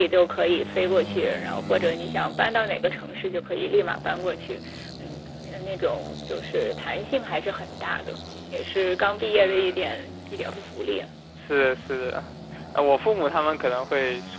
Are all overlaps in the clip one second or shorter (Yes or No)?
Yes